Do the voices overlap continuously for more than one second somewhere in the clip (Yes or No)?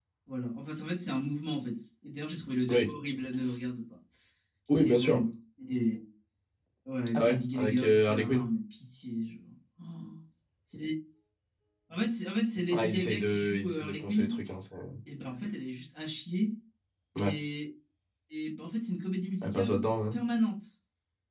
Yes